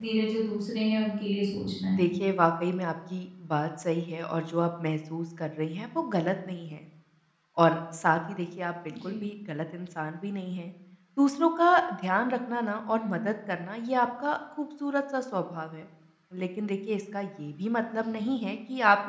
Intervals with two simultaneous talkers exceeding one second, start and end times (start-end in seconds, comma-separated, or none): none